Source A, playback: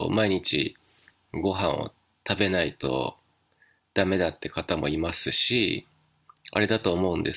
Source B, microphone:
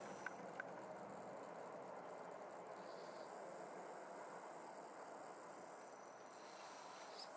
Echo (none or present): none